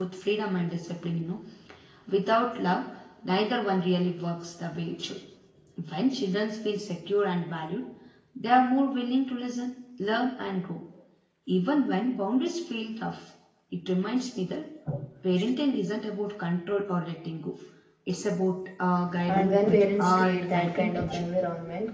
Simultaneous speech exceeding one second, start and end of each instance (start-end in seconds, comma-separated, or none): 19.3-21.2